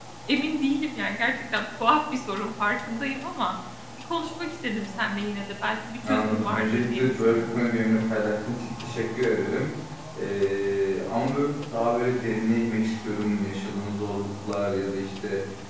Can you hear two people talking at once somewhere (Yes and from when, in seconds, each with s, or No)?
Yes, from 6.0 s